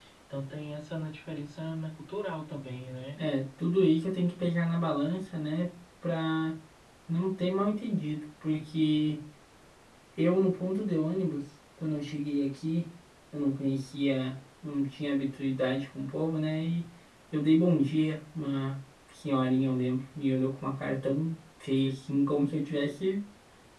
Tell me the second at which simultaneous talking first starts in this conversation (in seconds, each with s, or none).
none